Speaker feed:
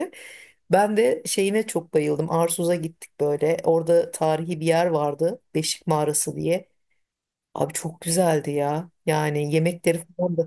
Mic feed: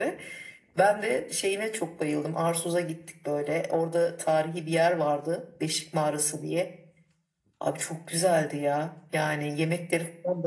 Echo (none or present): present